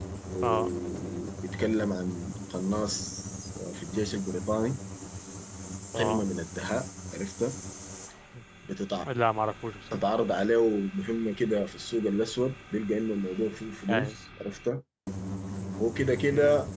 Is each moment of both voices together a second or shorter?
Yes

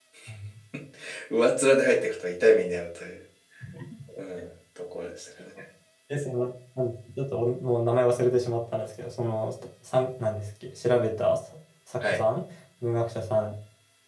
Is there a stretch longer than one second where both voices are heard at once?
No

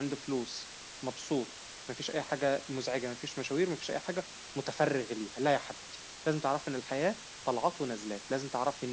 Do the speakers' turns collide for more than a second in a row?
No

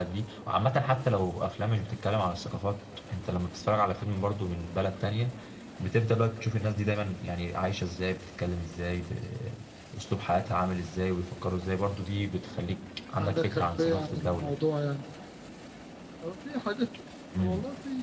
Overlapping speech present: Yes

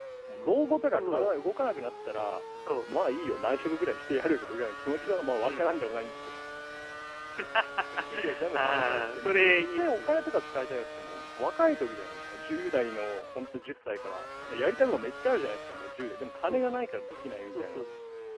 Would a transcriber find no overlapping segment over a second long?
No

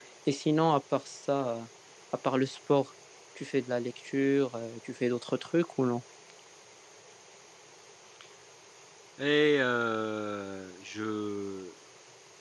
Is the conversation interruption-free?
Yes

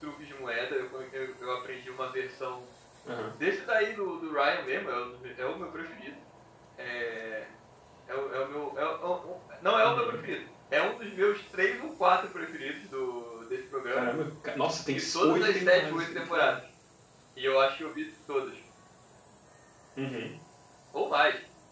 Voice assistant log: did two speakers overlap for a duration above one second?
Yes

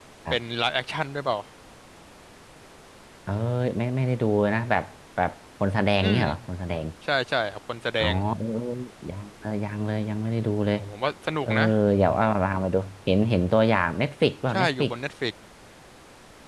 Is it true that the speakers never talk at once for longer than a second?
Yes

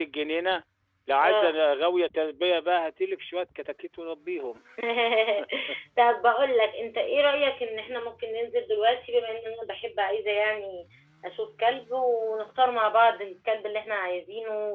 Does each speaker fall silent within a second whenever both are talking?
Yes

